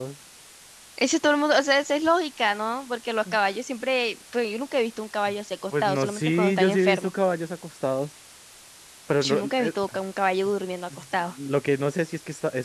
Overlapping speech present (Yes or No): Yes